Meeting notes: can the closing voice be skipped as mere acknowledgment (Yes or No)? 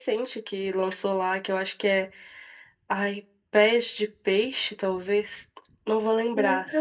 Yes